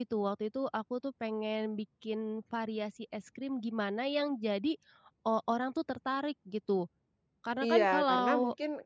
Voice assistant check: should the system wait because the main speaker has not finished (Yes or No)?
No